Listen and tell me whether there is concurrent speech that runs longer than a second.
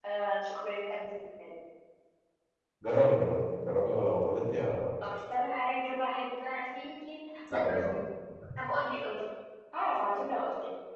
No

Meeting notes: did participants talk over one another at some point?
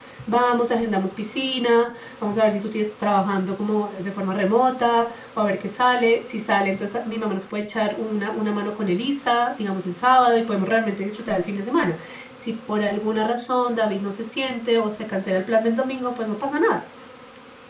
No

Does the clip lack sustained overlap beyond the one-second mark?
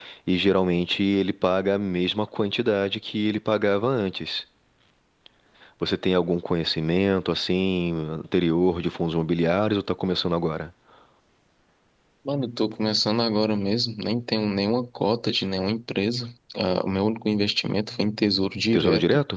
Yes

